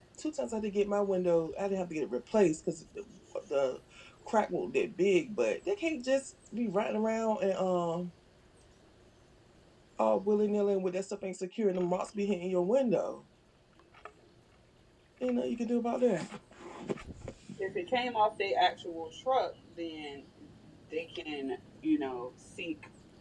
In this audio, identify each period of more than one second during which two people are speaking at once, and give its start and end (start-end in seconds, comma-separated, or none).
none